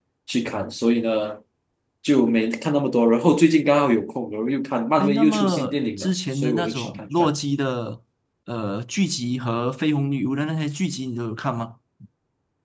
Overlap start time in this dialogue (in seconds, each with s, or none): 5.0 s